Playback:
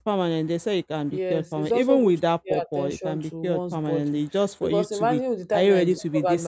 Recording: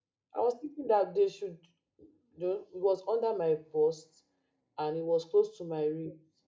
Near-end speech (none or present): present